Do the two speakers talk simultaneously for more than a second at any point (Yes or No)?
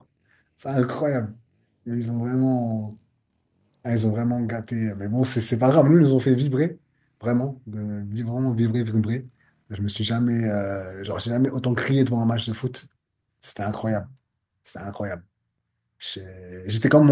No